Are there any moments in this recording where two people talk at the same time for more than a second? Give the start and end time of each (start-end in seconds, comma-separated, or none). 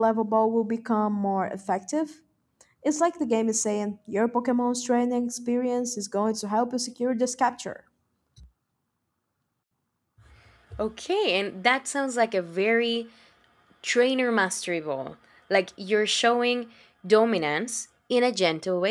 none